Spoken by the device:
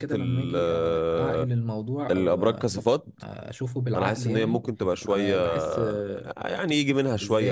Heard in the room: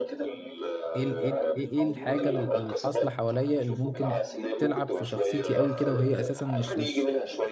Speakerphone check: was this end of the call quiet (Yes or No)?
No